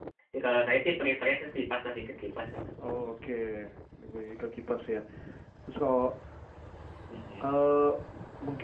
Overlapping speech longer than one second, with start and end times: none

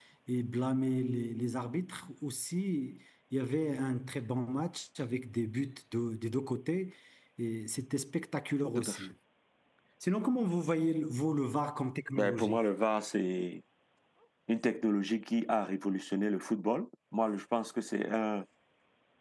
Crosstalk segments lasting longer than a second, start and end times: none

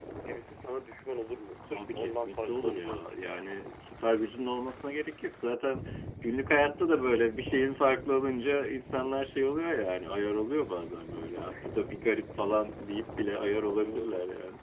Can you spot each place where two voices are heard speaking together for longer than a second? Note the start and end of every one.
1.6-3.1

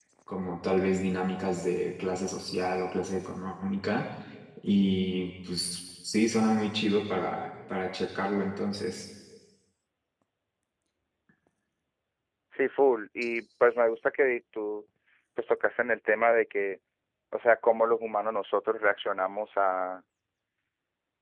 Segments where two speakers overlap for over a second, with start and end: none

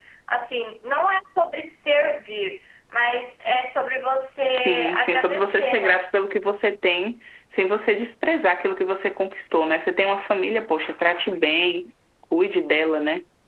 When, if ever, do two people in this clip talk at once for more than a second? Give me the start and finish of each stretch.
4.5-6.0

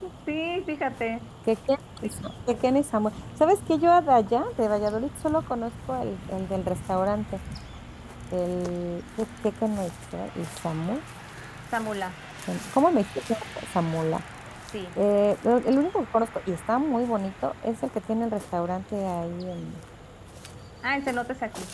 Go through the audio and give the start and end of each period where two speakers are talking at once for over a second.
none

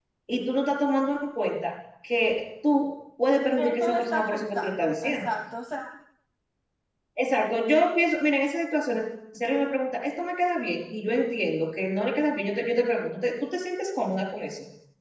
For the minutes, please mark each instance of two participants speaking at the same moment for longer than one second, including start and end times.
3.6-5.3

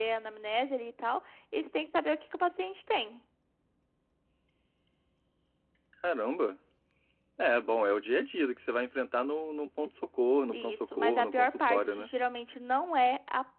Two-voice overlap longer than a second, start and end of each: 10.5-12.1

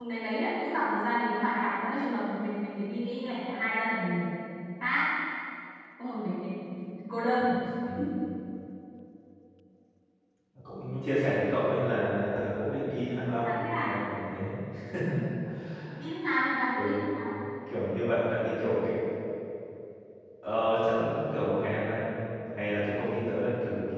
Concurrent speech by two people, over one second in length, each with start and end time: none

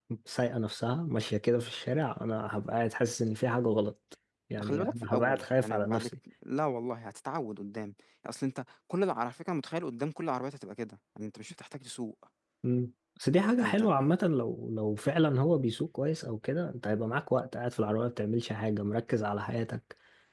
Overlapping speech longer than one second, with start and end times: 4.6-6.1

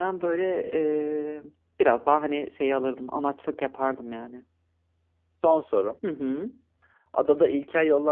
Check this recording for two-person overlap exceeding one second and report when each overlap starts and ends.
none

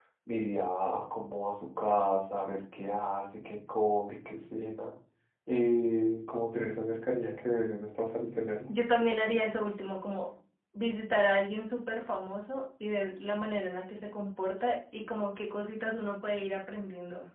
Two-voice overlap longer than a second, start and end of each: none

